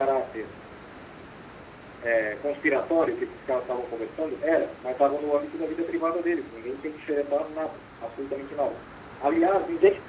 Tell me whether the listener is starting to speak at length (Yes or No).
No